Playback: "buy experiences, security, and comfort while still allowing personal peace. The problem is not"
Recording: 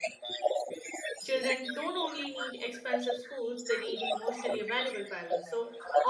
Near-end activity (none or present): present